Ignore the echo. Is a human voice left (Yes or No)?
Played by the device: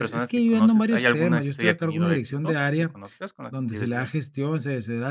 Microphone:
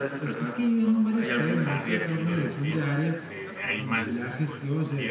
Yes